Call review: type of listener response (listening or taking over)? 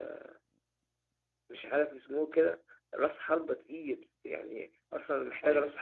listening